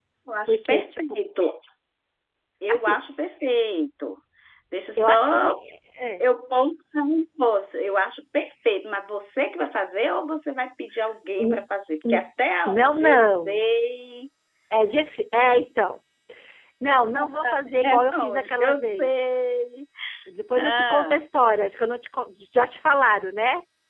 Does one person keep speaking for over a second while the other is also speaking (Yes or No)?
Yes